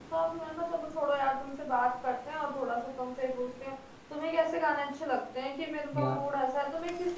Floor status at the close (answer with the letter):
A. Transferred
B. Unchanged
B